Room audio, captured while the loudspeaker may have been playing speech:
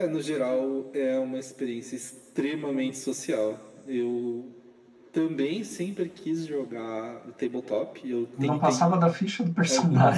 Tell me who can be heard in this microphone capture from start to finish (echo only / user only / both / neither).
both